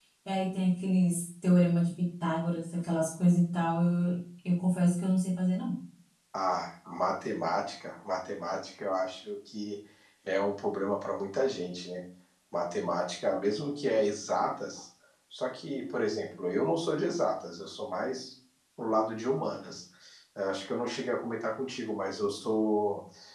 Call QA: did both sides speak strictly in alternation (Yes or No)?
Yes